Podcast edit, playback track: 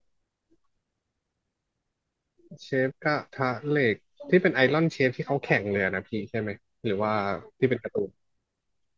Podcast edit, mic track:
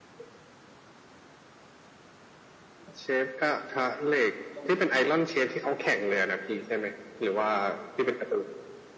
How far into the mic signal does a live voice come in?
none

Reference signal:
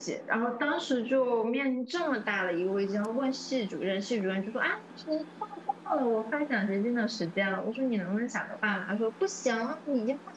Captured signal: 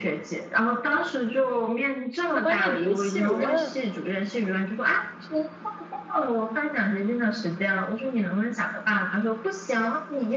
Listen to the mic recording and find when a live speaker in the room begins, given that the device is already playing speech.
2.3 s

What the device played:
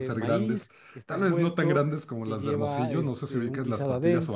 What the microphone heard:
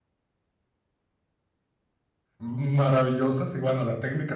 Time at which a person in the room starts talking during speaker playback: 2.4 s

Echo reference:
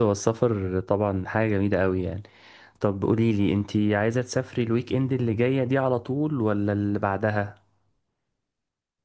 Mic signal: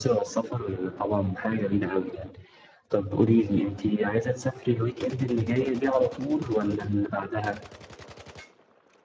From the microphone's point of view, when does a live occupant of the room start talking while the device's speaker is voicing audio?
none

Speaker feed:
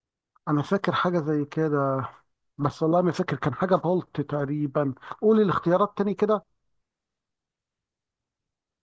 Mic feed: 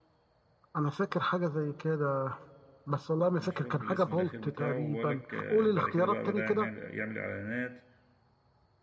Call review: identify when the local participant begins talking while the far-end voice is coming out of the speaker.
3.3 s

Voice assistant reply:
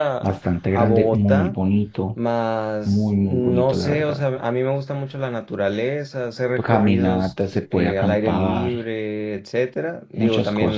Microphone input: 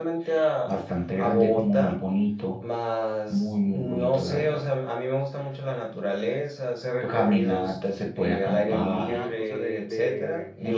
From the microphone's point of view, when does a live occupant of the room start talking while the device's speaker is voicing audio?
8.4 s

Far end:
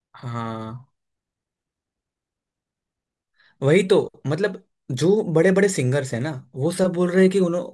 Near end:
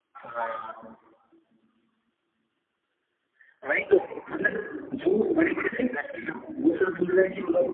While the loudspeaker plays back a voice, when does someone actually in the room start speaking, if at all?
none

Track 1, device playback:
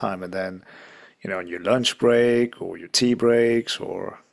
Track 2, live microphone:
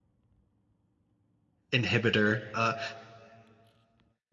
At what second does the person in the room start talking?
1.7 s

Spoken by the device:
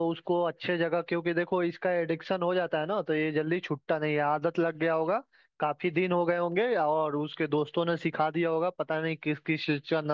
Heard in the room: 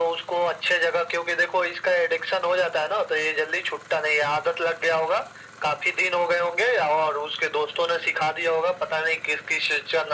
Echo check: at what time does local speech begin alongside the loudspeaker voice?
none

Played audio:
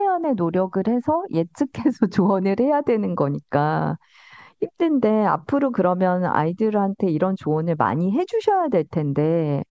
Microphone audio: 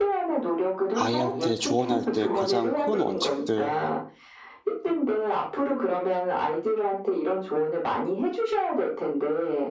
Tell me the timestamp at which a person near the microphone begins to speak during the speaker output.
0.9 s

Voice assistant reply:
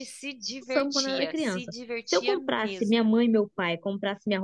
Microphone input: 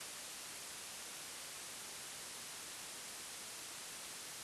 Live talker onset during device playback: none

